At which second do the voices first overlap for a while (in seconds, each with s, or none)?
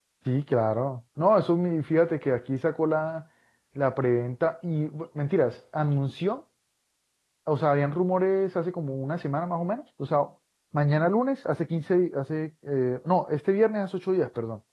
none